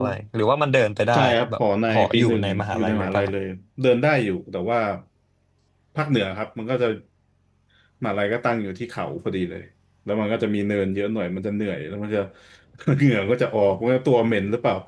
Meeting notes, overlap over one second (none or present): present